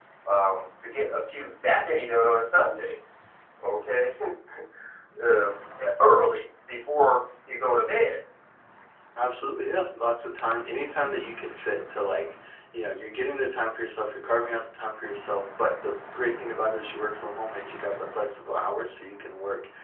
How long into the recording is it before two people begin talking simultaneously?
none

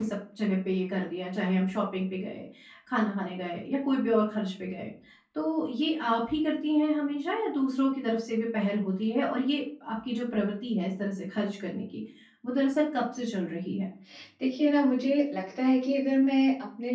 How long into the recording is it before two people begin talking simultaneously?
none

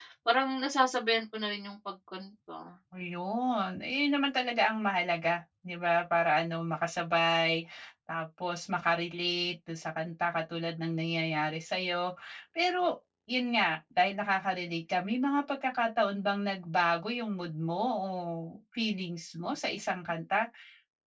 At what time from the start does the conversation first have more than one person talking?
none

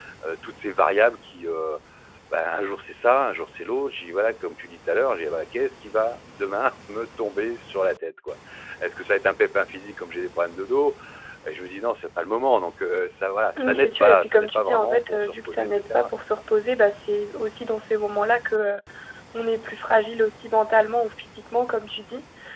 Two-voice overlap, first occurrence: 13.6 s

